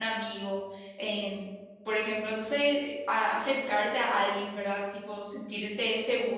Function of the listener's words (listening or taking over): listening